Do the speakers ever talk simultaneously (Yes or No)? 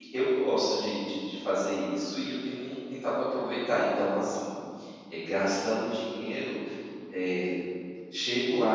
No